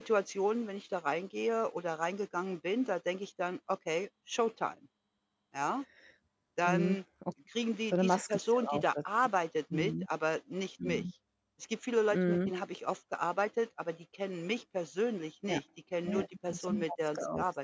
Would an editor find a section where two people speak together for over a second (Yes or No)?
Yes